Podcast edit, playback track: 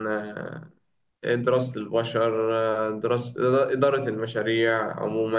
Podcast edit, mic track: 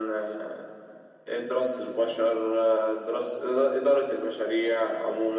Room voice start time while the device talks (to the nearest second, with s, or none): none